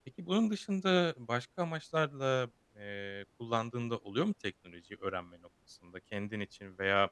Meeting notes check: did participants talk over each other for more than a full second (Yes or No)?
No